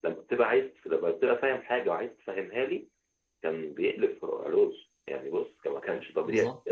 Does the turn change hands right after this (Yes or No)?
Yes